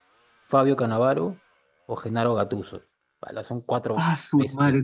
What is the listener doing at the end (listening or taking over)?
taking over